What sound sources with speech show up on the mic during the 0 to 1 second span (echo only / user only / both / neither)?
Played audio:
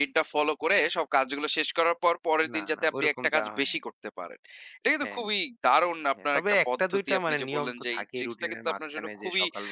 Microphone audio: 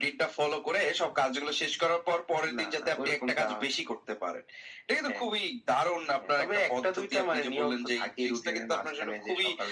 echo only